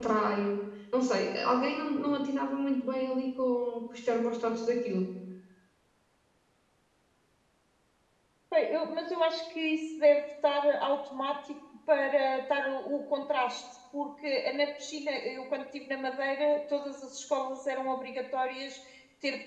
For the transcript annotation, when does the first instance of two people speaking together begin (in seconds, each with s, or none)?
none